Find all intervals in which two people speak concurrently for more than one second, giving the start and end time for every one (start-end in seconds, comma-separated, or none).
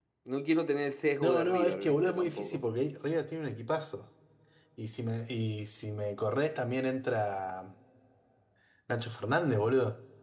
1.2-2.6